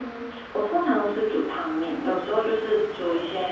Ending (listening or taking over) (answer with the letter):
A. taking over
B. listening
B